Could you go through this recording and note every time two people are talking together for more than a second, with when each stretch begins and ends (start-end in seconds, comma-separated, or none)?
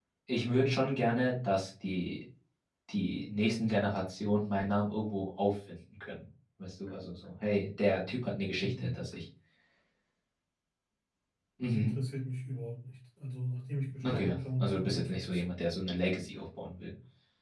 14.0-15.5